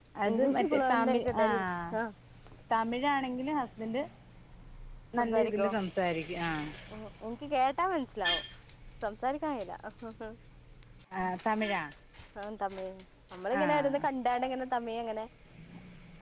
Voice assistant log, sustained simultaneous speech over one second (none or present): present